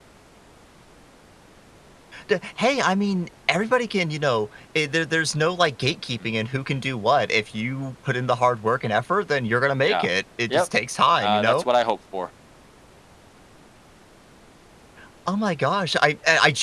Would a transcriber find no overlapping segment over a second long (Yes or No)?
Yes